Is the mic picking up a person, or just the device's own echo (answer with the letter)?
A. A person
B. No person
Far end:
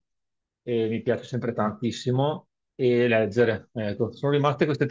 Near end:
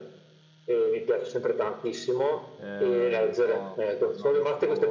A